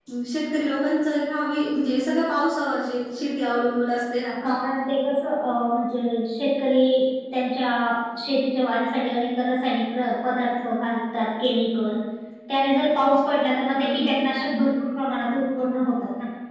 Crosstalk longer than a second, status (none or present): none